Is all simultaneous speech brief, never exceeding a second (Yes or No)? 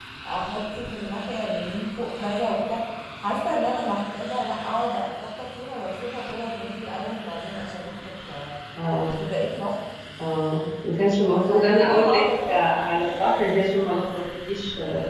No